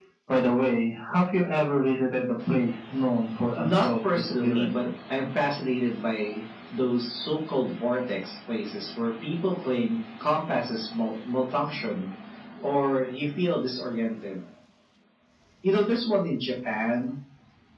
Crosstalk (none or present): present